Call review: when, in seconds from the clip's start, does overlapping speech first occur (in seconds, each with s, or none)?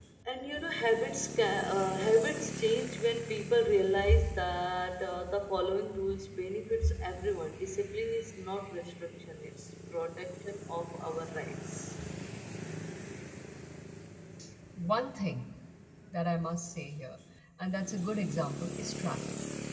none